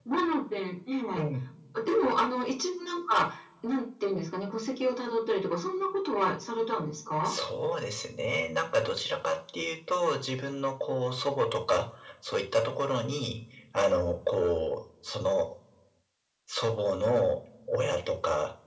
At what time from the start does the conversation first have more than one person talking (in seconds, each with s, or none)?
none